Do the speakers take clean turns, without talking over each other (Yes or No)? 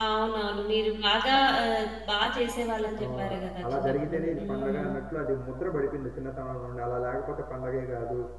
No